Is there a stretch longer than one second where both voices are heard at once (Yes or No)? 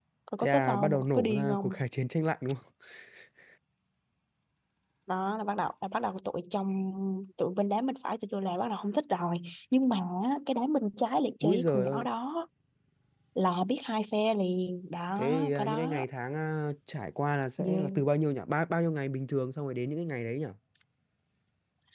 Yes